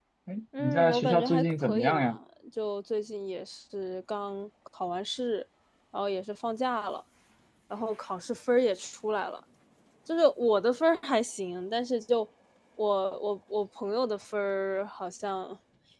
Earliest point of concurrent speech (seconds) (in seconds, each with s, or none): 0.6 s